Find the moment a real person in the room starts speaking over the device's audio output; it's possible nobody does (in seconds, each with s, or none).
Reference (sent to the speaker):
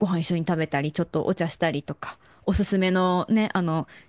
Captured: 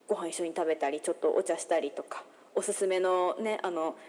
none